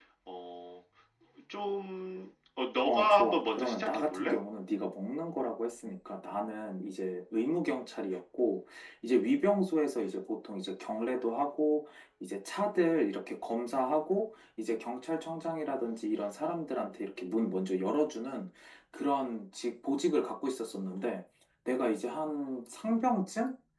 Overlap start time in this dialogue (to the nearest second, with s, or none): 3 s